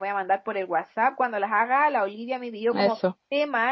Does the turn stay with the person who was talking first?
Yes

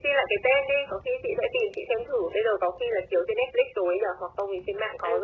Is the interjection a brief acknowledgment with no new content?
No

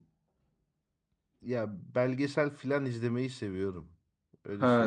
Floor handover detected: Yes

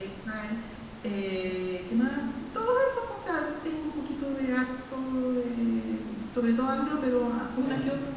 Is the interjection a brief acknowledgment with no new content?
Yes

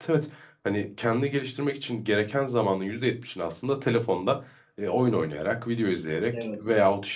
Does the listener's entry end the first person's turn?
No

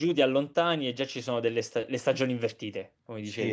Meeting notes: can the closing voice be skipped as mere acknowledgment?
No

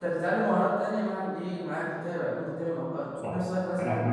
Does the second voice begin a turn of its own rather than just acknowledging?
Yes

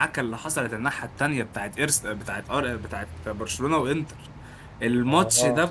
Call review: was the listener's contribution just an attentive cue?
Yes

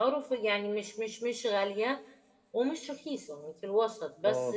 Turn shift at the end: Yes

